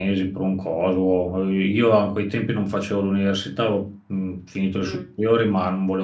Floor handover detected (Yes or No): No